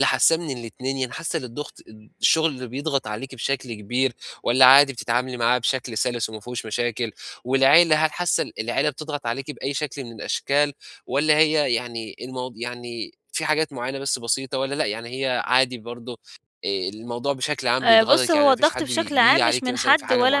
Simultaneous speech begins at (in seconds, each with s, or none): 17.8 s